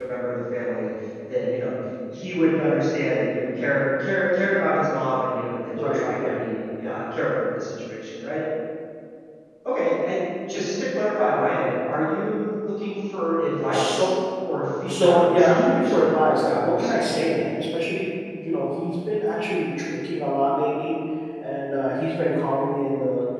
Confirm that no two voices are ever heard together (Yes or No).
No